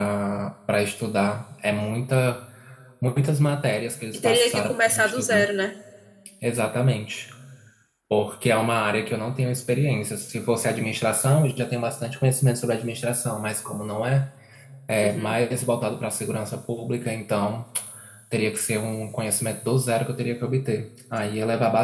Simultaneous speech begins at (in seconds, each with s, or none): 4.1 s